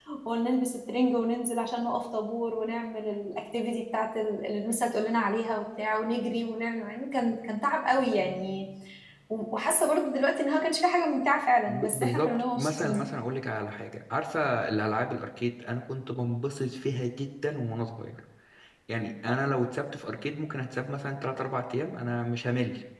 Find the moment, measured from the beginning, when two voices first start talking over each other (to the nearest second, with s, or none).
12 s